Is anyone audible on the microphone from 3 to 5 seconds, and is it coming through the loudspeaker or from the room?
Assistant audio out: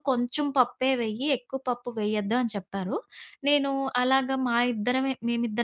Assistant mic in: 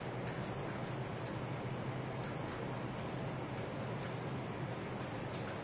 neither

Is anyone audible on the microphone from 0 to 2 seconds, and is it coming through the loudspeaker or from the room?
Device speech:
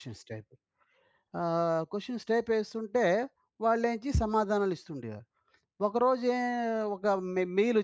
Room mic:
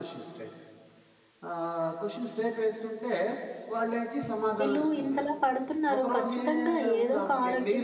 echo only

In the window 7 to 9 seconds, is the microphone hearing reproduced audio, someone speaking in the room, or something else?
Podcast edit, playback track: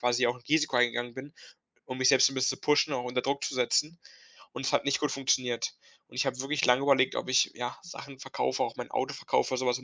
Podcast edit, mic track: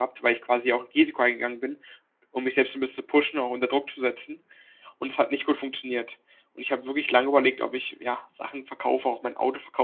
echo only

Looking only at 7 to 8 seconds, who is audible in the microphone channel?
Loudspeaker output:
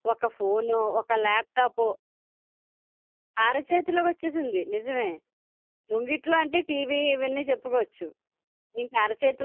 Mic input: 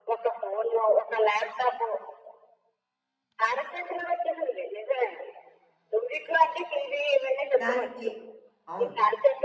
both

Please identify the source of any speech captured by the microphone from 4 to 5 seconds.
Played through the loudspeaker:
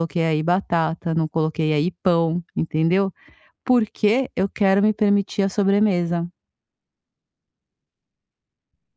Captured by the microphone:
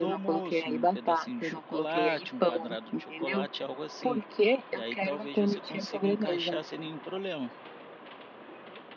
both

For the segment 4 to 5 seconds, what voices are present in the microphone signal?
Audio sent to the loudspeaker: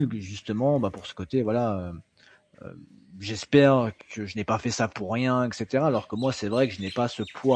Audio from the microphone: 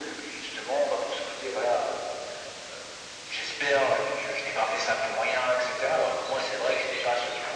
echo only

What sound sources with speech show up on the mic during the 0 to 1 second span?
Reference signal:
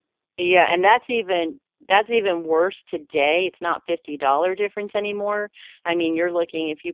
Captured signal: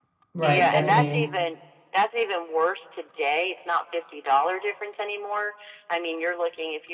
both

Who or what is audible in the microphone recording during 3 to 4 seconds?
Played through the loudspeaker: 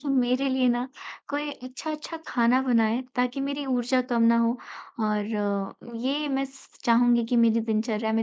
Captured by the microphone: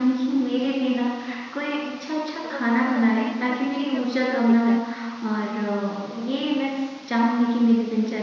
both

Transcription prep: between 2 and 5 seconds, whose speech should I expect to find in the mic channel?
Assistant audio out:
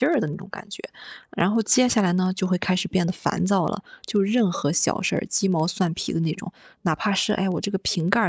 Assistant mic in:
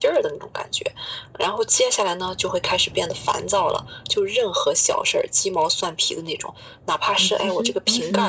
echo only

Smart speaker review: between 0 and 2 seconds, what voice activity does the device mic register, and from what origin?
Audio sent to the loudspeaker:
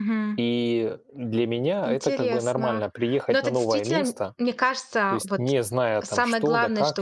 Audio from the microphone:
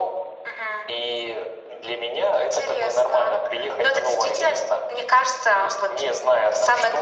echo only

